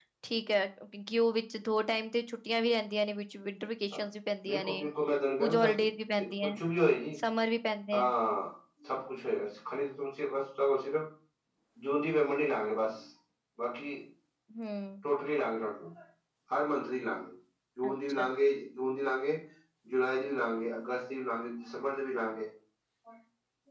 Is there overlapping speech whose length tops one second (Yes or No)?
No